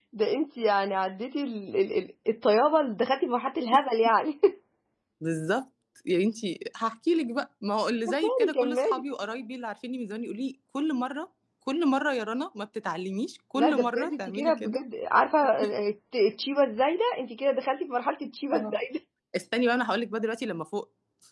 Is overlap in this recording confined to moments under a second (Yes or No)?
No